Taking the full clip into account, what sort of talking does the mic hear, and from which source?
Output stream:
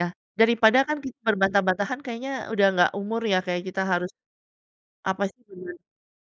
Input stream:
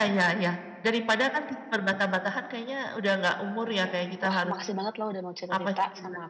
both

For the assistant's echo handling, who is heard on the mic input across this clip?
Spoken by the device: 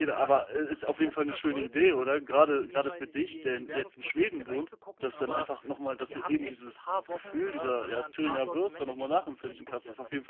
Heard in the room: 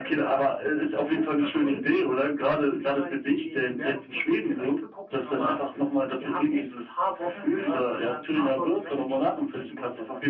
echo only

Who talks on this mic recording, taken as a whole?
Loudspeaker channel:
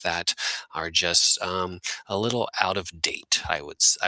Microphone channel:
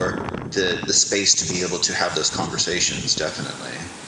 user only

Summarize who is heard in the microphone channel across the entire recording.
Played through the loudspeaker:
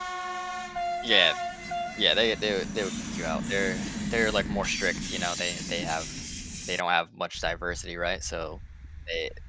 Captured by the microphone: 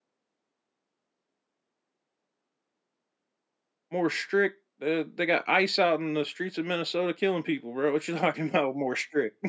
user only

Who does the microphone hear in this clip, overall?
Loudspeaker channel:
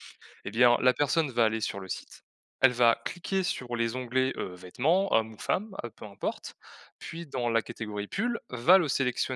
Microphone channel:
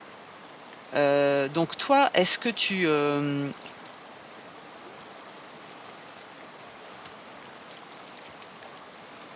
user only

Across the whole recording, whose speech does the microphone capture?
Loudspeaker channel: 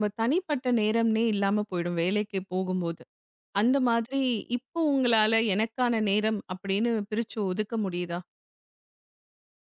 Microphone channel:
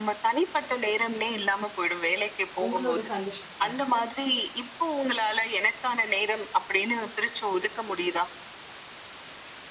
both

